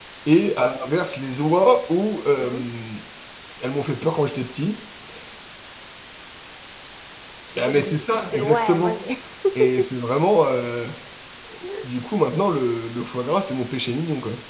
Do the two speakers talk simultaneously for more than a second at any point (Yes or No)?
Yes